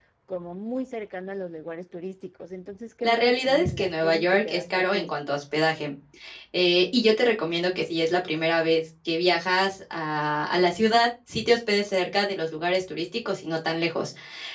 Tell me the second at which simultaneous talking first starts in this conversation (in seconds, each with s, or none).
3.0 s